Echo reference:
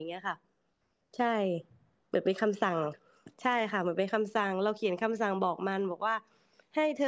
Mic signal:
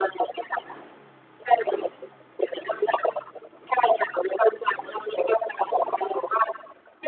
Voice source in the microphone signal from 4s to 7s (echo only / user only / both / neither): echo only